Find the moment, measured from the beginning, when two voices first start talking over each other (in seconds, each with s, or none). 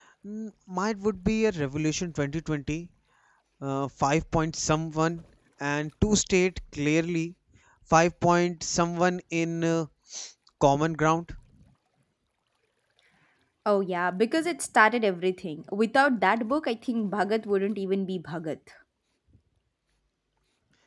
none